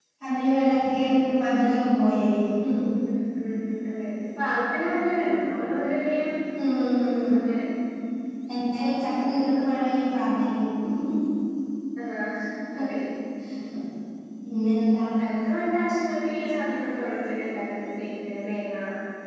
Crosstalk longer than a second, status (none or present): none